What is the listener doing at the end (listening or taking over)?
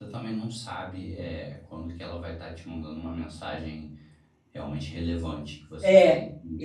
taking over